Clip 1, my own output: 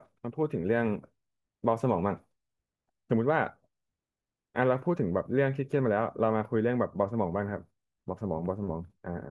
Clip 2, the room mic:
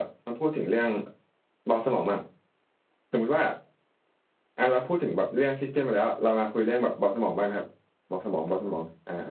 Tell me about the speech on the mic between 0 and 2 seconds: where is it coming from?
echo only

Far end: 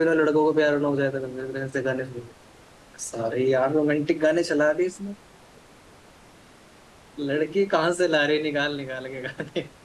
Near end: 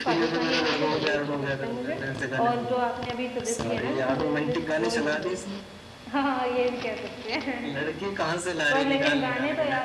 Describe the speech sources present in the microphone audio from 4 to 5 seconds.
both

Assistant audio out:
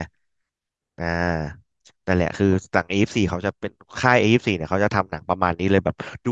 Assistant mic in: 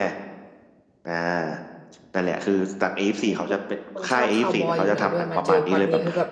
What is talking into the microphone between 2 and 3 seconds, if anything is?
echo only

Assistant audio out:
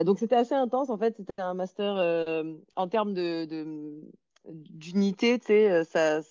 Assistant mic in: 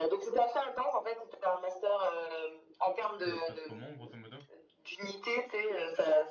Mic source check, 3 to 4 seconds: both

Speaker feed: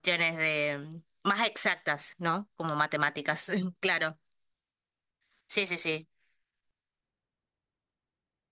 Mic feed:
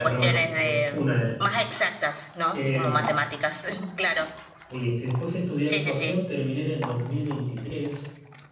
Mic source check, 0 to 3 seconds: both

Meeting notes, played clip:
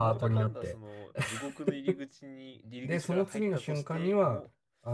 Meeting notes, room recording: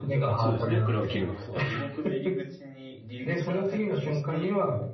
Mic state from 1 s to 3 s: both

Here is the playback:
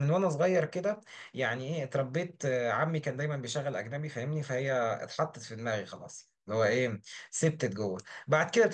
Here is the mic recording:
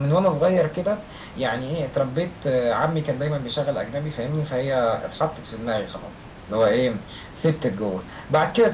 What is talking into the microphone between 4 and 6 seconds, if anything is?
echo only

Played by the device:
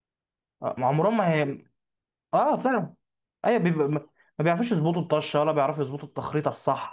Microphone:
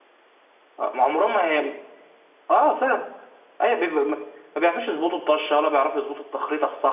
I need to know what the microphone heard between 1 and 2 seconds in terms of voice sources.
echo only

